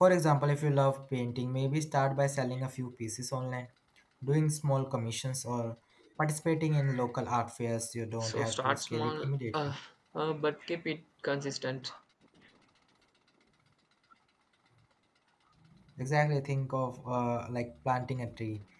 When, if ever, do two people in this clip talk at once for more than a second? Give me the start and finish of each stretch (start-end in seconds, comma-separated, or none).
8.2-9.7